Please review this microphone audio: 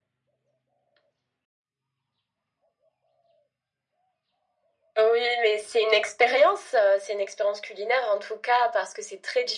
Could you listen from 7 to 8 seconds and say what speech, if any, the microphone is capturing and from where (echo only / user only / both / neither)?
echo only